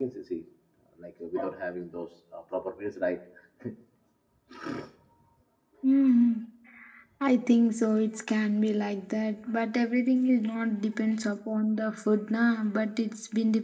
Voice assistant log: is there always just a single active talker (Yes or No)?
Yes